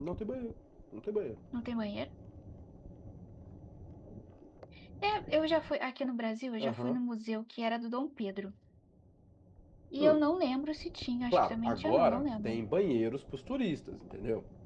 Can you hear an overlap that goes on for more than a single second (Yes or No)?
Yes